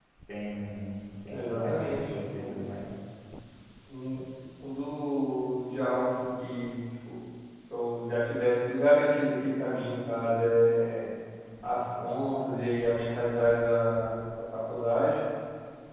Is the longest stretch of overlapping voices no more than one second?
No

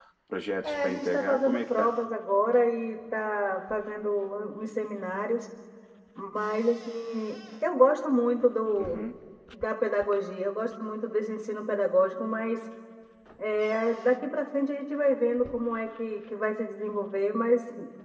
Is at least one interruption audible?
Yes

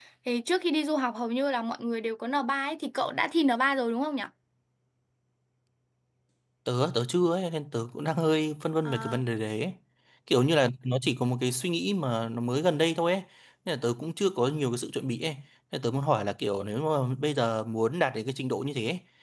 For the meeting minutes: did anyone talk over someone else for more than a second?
No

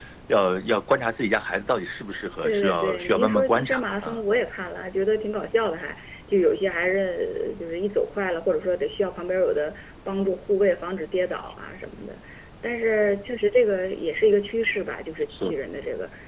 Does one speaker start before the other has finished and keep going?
Yes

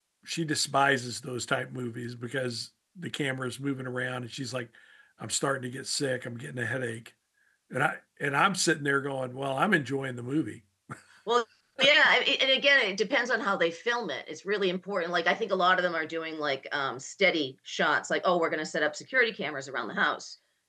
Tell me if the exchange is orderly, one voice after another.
Yes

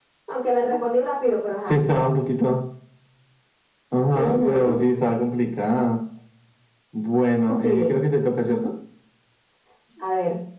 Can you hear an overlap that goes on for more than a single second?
No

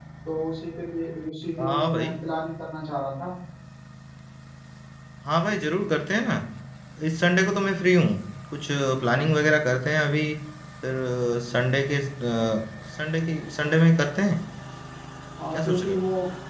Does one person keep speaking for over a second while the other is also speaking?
No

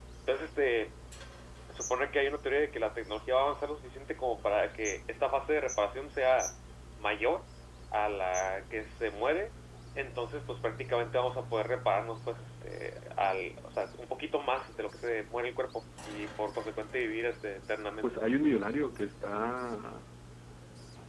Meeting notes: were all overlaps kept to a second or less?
Yes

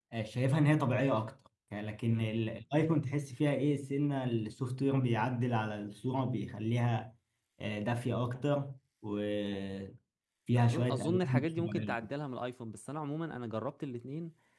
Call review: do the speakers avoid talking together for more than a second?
No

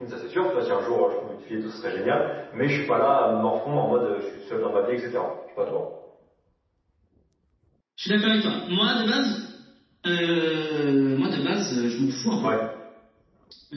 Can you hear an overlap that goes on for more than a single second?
No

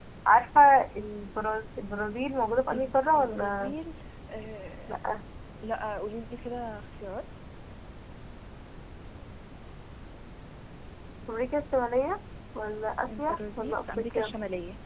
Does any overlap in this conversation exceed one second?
Yes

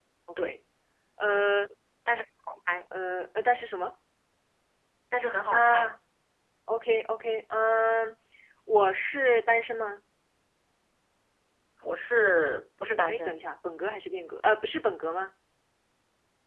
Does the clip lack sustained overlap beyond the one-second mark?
Yes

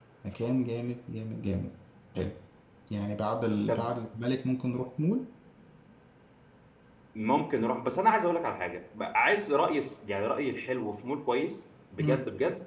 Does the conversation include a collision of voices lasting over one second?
No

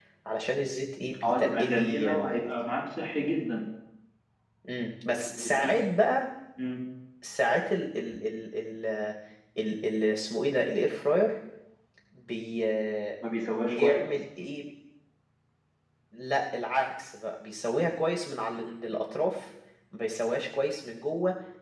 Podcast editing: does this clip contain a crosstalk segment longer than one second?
Yes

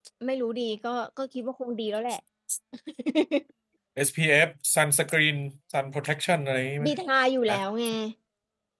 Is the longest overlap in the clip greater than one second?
No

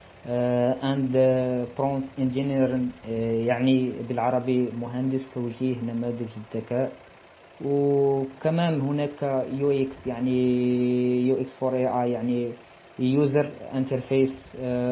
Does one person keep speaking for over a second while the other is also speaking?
No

